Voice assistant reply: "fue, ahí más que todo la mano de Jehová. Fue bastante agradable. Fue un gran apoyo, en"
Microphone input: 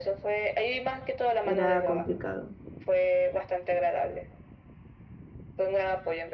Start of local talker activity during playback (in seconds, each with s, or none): 1.4 s